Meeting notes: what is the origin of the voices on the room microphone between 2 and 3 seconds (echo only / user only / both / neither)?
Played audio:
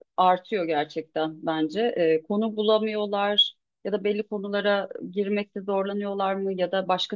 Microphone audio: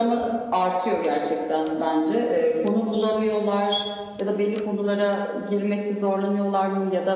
echo only